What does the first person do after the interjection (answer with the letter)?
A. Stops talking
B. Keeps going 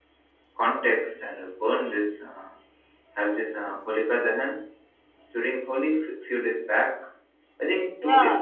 A